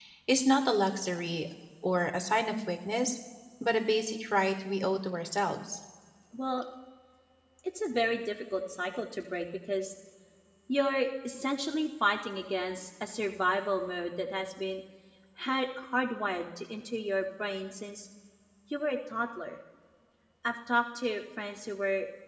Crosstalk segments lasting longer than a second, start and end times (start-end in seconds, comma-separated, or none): none